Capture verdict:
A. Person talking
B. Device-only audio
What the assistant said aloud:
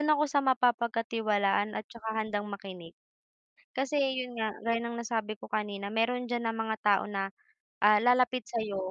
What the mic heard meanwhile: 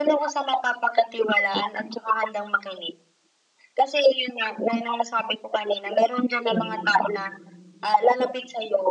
A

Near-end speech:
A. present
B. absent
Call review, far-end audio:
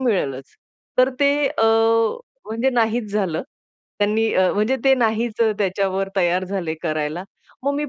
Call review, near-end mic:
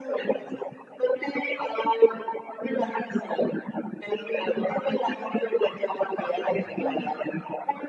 A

